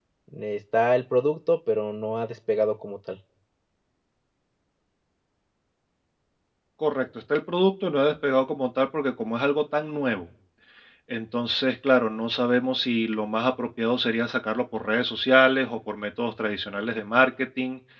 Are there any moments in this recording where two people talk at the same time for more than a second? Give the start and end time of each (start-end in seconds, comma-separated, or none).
none